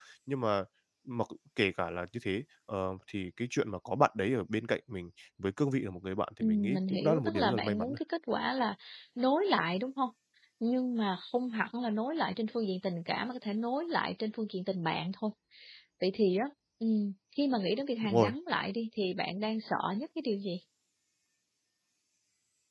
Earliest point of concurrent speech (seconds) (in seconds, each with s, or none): 6.4 s